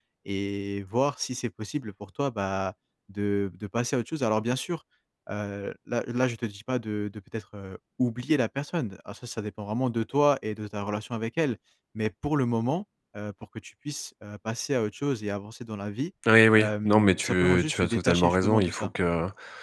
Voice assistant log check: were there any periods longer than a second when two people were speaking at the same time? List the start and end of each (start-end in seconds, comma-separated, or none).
16.6-18.9